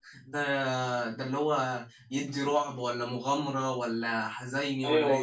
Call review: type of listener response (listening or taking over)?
taking over